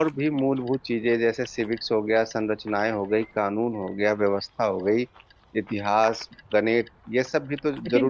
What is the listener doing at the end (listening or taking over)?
taking over